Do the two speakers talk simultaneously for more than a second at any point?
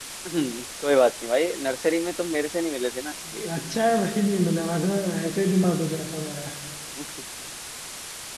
No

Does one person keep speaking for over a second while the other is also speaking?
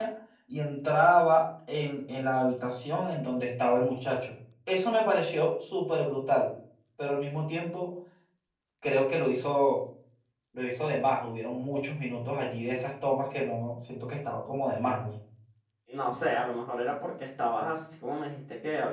No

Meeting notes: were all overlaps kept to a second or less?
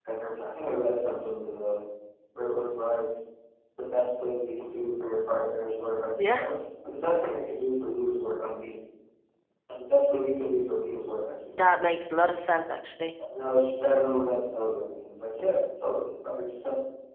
Yes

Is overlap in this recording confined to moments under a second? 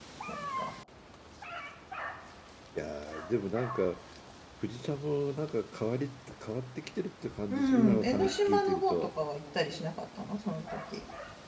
No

